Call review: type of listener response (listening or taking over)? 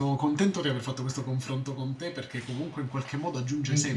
listening